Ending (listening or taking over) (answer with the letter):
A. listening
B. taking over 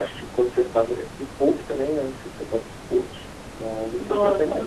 B